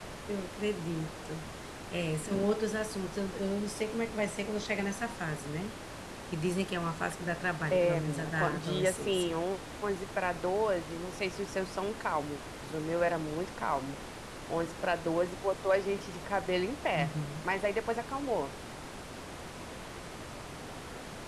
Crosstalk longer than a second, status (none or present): present